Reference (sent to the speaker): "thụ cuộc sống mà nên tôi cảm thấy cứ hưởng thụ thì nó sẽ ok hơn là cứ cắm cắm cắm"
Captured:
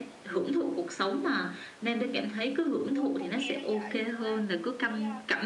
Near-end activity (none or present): present